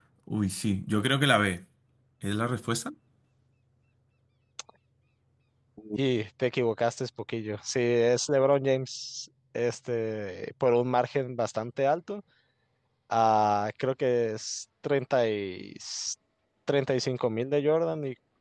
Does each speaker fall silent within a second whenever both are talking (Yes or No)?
Yes